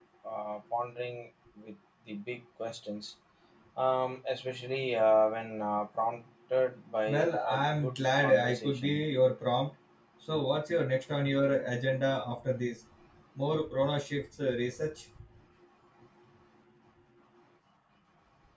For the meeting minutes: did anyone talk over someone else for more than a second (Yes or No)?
Yes